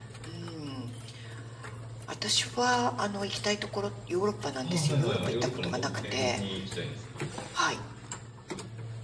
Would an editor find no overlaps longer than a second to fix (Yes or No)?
No